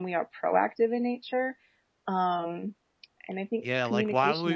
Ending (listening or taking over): taking over